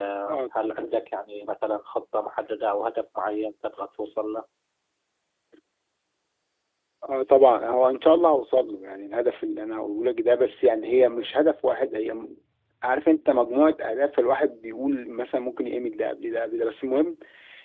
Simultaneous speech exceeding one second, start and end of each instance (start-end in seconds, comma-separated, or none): none